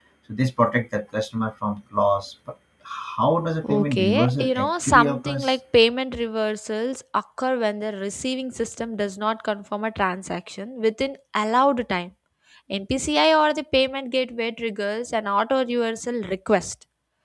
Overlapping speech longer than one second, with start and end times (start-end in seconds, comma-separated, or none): 3.7-5.5